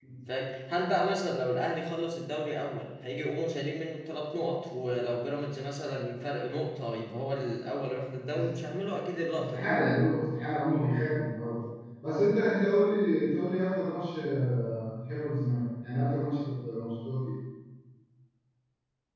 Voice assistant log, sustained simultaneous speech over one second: none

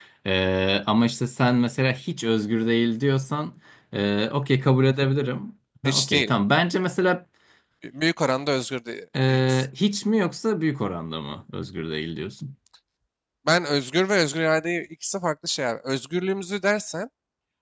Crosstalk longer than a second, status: none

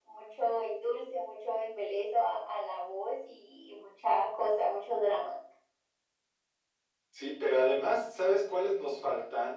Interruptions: none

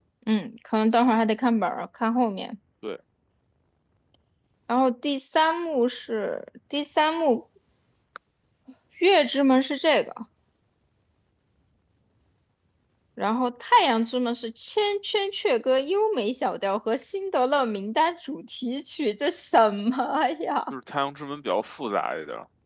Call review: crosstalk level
none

